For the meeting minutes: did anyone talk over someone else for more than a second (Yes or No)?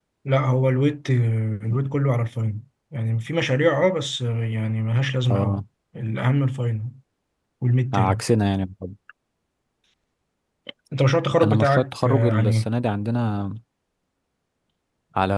Yes